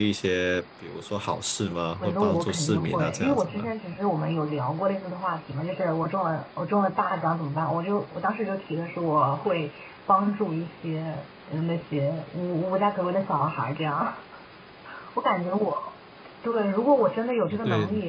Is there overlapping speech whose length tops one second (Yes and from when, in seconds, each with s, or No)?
Yes, from 2.0 s